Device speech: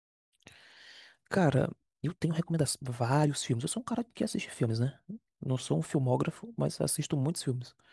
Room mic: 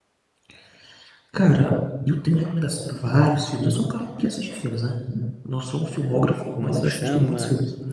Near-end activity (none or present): present